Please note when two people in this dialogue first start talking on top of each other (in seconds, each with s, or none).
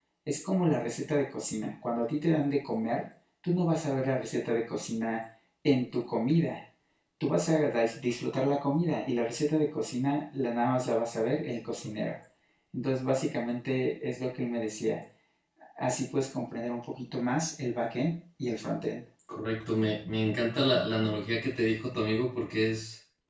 none